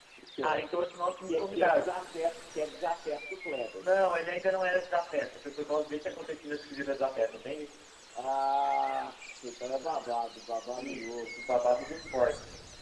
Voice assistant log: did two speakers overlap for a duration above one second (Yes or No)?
Yes